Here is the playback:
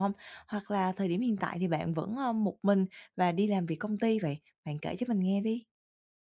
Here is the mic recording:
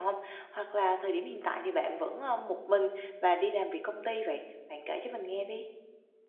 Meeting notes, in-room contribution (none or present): none